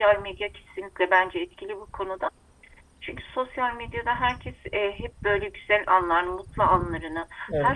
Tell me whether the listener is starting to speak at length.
No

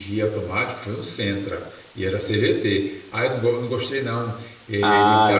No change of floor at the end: No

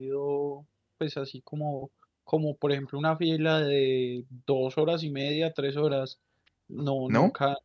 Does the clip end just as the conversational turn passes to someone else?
No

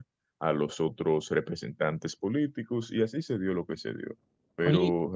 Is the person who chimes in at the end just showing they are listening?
Yes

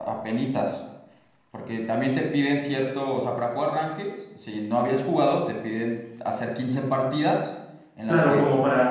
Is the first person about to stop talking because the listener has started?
Yes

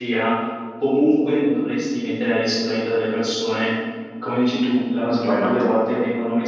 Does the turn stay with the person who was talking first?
Yes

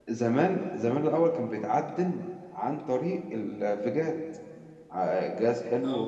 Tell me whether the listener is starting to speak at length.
No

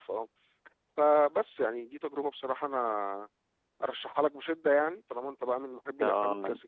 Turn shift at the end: Yes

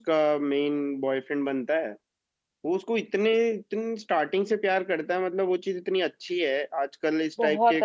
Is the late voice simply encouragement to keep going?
Yes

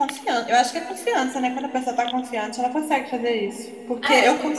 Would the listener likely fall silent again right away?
Yes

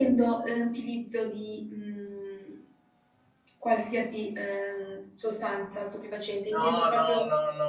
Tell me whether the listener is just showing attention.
No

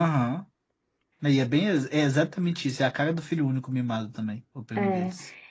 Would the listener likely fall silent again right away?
No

